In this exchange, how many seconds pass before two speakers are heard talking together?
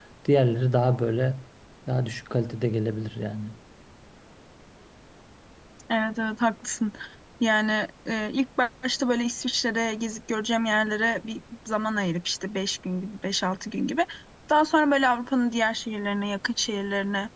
none

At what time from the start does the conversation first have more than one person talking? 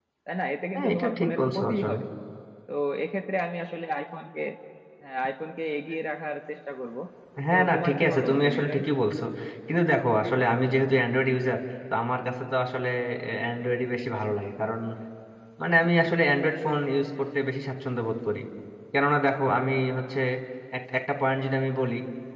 0.8 s

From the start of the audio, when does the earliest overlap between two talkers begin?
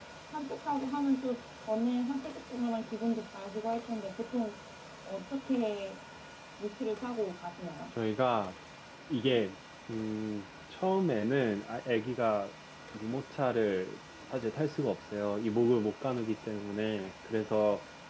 none

